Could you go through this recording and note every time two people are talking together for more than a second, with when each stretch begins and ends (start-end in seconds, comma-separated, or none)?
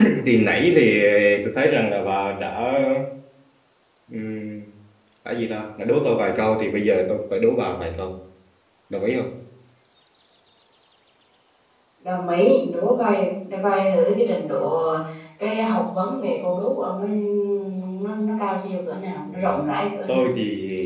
none